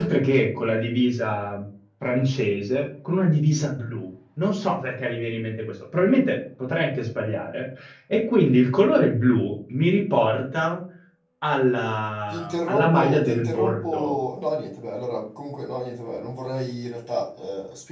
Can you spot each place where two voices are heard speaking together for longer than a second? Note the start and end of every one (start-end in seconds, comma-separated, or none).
12.3-14.1